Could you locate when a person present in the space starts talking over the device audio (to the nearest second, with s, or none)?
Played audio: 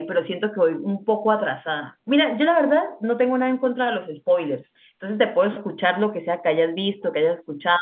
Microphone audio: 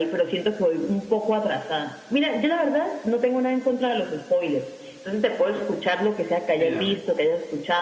7 s